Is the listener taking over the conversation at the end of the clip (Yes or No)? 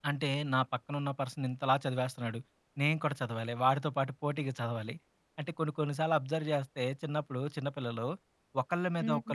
No